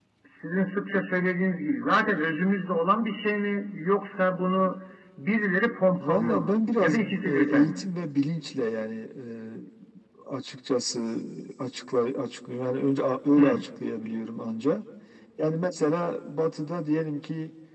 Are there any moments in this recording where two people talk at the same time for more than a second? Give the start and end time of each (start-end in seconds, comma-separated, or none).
6.0-7.9